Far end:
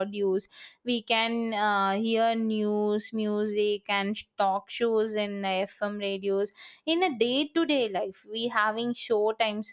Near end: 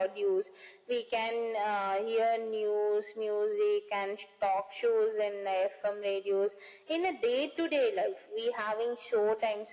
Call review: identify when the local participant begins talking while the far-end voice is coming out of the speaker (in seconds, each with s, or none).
none